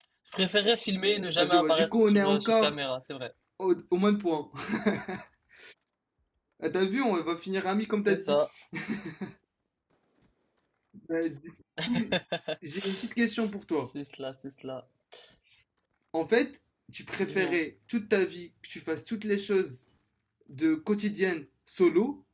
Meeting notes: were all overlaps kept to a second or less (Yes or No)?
No